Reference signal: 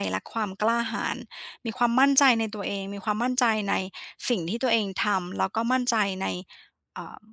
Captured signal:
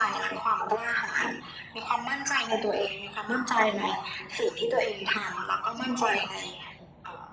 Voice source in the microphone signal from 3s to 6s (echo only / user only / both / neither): echo only